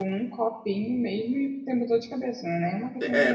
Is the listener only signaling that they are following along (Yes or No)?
No